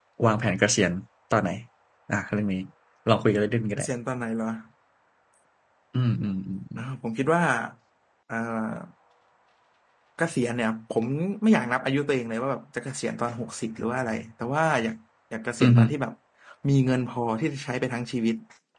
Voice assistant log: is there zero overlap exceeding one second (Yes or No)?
Yes